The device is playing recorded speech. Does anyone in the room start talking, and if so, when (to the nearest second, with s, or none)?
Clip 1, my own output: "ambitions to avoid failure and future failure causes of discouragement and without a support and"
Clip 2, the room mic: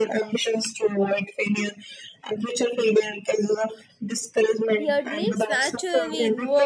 5 s